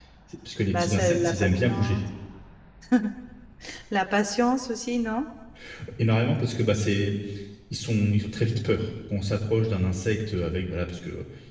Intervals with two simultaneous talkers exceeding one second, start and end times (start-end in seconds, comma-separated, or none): 0.7-2.0